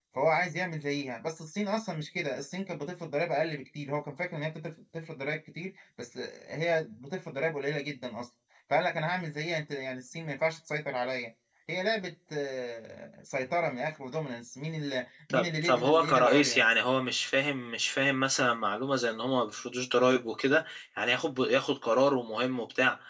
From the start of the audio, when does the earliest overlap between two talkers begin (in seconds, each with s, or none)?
15.3 s